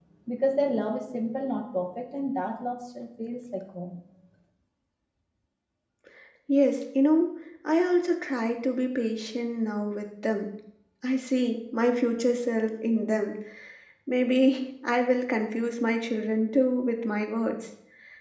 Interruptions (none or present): none